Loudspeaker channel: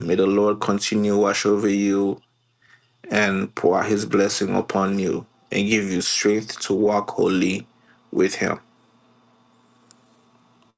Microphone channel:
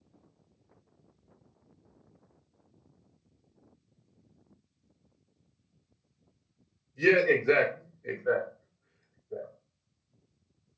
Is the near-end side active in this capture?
Yes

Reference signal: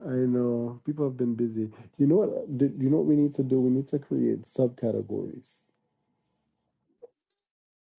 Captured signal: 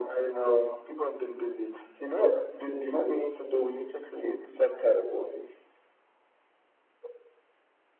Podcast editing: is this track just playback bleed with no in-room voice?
Yes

